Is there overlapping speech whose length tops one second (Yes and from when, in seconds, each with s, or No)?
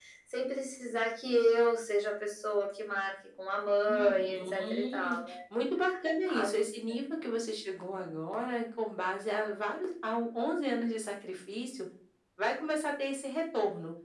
Yes, from 3.9 s